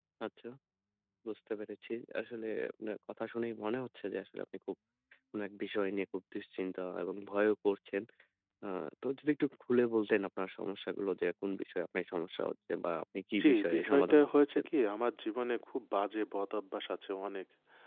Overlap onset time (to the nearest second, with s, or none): 13 s